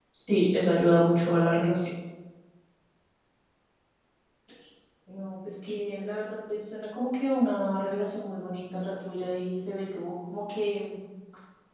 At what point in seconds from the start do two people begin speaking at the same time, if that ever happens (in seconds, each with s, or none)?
none